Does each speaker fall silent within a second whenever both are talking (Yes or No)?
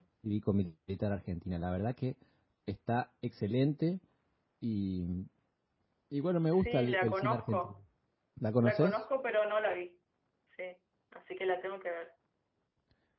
No